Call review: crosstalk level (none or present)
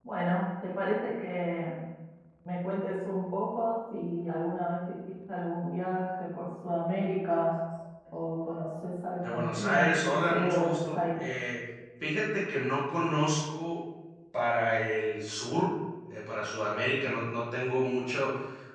present